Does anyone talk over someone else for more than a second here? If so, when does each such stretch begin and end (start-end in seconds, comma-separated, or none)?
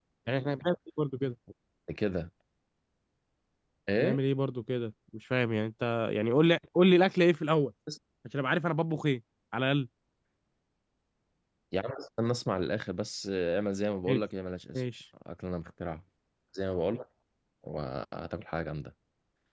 none